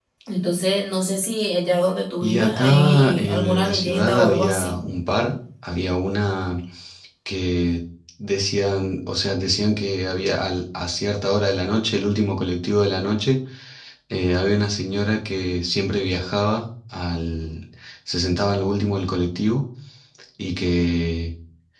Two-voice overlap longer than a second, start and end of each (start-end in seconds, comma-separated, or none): 2.2-4.8